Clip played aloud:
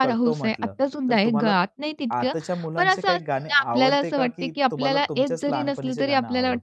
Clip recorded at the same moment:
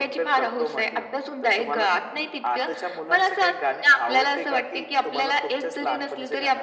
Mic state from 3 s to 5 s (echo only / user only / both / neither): echo only